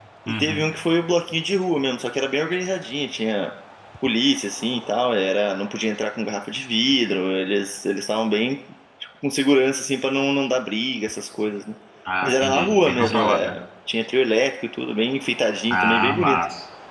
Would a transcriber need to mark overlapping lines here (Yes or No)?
Yes